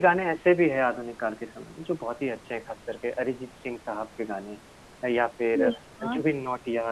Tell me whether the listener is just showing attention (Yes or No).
Yes